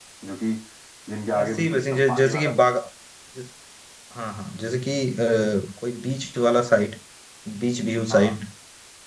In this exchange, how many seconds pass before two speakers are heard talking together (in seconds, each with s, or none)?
1.4 s